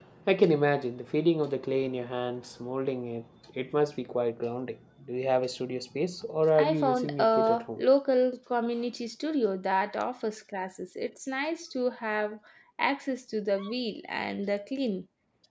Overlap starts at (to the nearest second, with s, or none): 7 s